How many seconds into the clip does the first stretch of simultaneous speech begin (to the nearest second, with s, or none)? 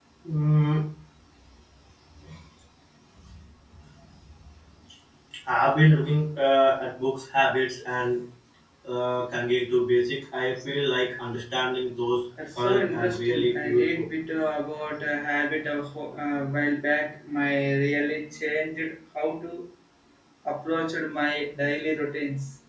12 s